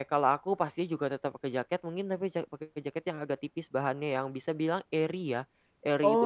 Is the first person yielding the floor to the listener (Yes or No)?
No